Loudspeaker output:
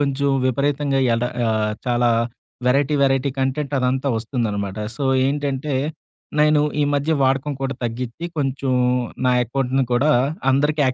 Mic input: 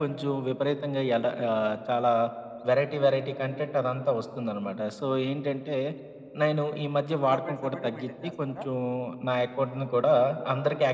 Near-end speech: present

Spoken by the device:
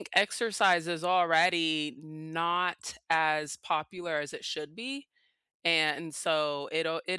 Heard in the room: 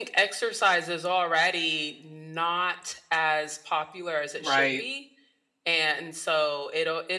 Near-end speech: present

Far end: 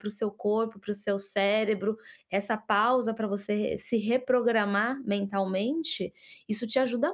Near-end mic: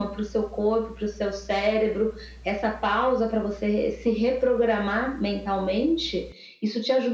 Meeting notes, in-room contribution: none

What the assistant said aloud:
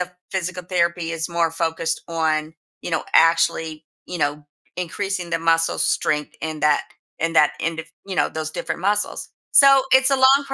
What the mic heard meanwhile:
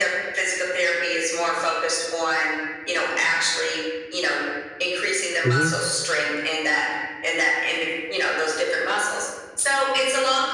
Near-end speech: present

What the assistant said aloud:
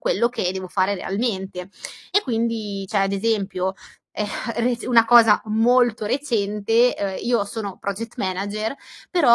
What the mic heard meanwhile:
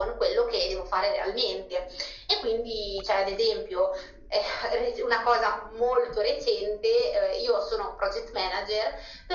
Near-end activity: none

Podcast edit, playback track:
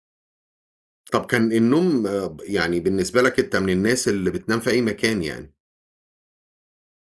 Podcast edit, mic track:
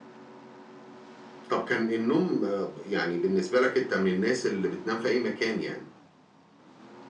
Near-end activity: none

